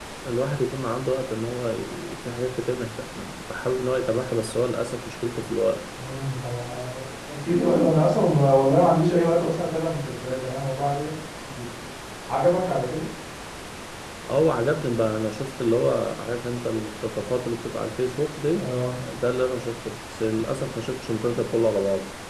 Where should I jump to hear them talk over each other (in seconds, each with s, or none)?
none